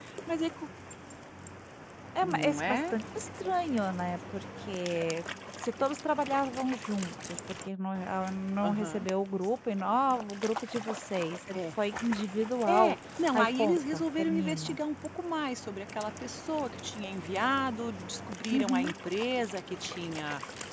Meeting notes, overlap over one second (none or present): present